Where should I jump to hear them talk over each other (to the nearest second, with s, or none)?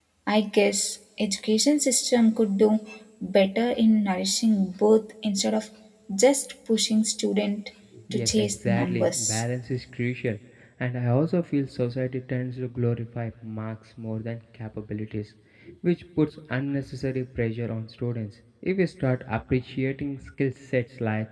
8 s